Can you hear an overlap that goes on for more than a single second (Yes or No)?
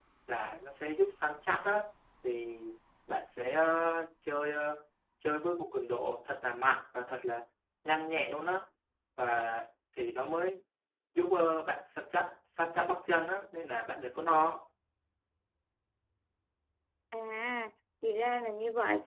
No